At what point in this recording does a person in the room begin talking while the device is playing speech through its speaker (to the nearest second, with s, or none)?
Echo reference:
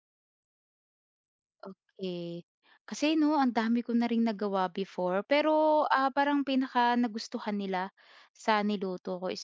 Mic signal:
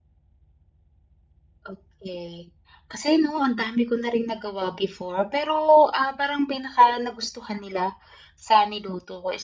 none